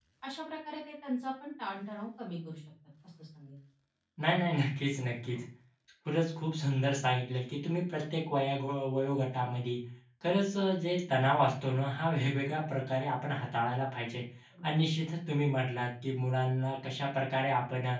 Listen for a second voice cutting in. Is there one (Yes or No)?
No